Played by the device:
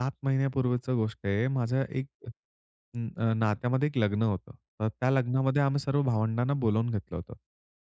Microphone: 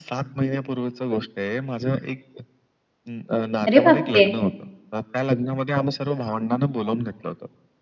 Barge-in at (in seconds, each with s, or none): 3.7 s